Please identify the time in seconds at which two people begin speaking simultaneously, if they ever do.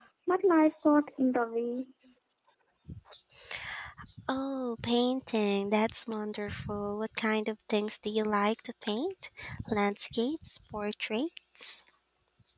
none

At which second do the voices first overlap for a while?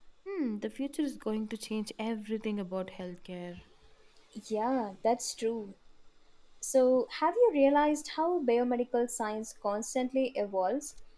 none

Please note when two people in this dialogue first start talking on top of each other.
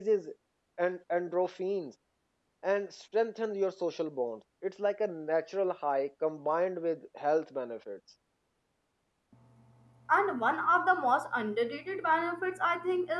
none

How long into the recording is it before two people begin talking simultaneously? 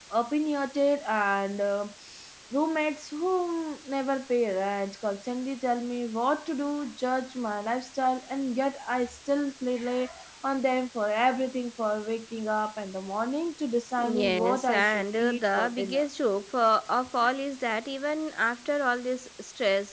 14.0 s

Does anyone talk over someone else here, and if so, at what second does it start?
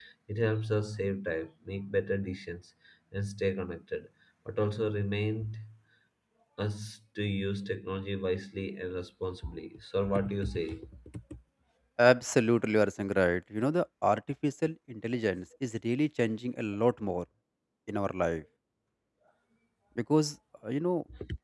none

